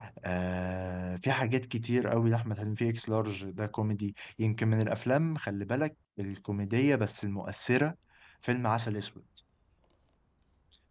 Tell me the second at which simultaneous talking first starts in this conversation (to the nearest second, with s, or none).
none